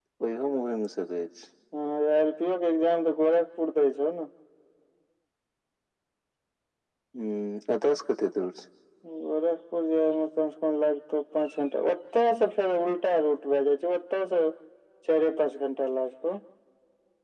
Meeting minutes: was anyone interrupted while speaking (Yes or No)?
No